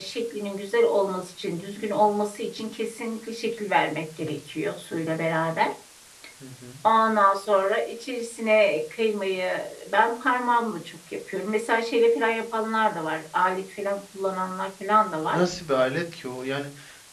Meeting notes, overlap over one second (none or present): none